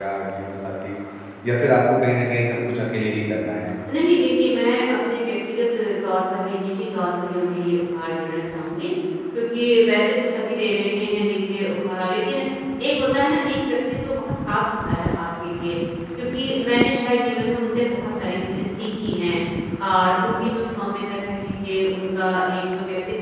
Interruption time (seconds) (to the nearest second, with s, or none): none